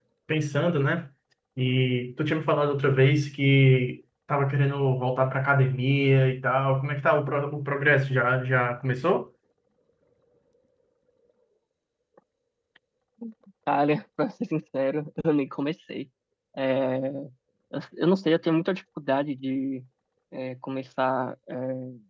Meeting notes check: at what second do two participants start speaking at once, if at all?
none

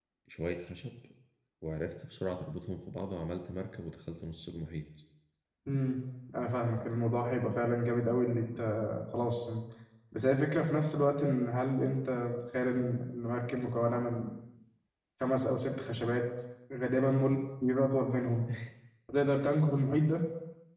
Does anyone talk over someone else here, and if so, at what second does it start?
none

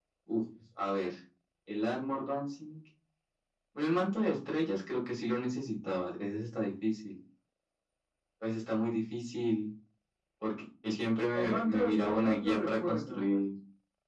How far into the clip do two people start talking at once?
11 s

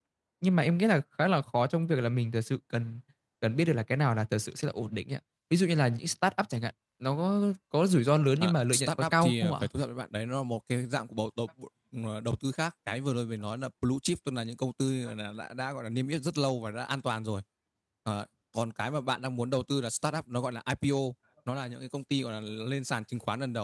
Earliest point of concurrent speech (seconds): 8 s

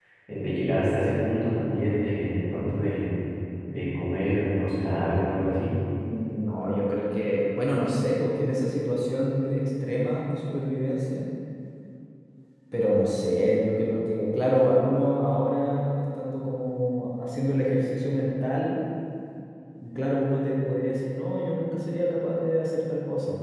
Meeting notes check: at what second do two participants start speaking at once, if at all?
none

